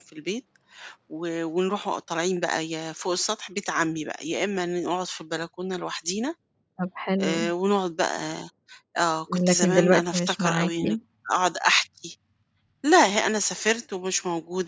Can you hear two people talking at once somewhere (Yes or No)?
Yes